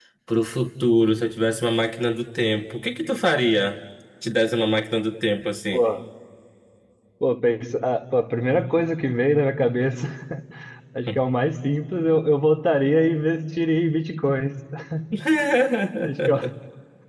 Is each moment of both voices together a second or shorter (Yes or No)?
Yes